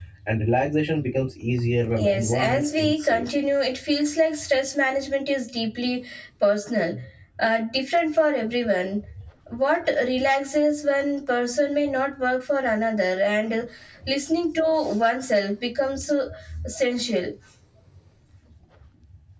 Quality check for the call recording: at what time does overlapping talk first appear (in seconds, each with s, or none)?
1.9 s